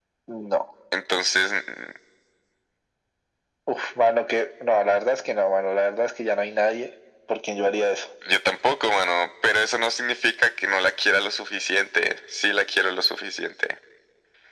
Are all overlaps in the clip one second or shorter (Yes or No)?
Yes